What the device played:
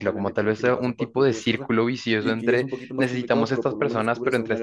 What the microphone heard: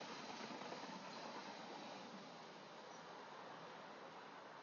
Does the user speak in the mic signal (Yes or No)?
No